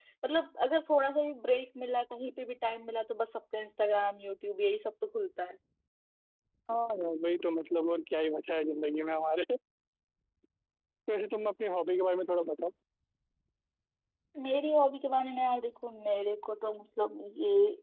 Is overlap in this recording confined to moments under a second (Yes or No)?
Yes